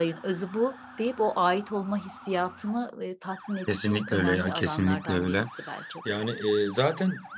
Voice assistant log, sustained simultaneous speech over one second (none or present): present